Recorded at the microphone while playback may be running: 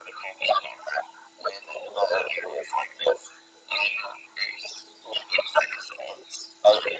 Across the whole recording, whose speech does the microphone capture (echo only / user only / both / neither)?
echo only